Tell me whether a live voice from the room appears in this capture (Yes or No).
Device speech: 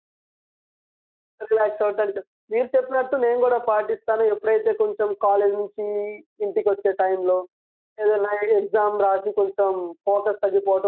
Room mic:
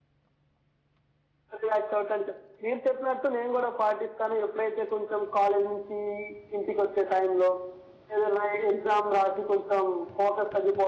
No